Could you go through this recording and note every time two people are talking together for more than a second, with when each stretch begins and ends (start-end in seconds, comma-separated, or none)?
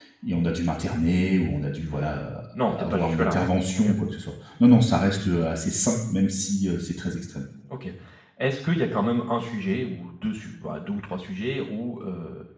2.7-3.9